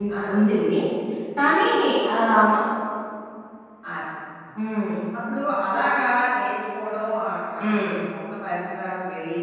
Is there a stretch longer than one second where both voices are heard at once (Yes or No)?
No